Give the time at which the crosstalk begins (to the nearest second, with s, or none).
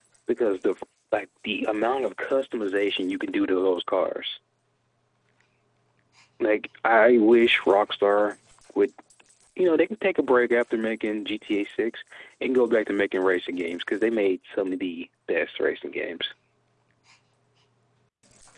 none